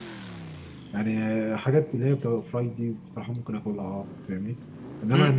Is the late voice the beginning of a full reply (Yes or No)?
Yes